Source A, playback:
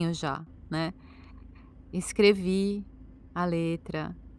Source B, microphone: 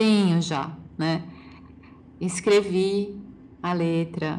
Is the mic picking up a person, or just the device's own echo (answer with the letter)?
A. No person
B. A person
A